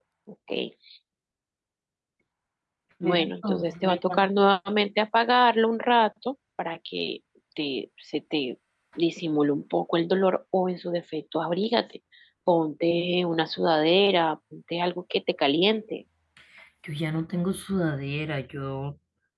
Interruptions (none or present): present